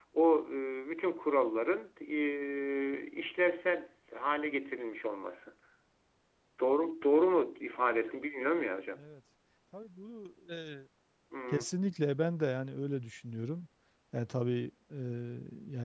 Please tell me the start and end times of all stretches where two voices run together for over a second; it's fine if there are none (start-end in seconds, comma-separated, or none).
none